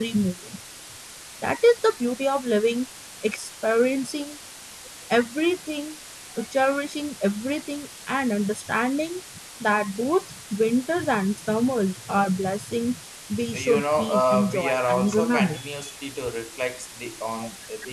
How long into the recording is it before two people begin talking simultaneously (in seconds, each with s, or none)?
13.5 s